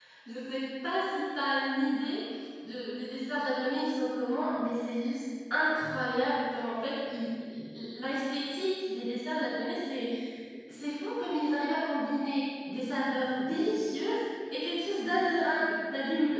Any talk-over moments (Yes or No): No